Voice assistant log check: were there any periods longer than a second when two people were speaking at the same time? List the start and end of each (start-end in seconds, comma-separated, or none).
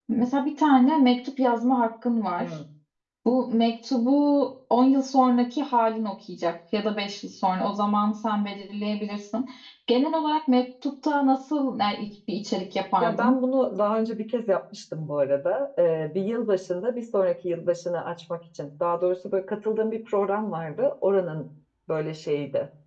none